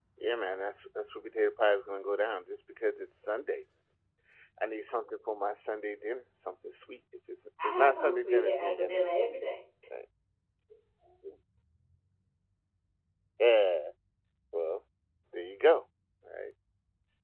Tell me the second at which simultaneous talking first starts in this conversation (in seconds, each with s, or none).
7.6 s